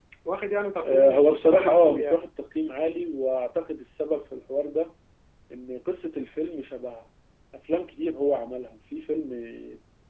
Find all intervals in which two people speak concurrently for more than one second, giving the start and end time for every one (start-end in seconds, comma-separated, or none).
0.8-2.3